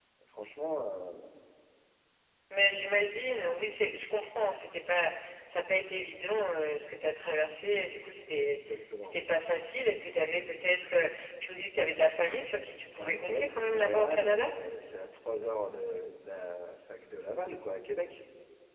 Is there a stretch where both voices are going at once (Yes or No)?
Yes